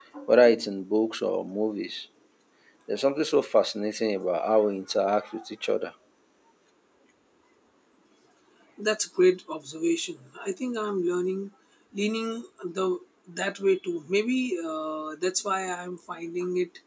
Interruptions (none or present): none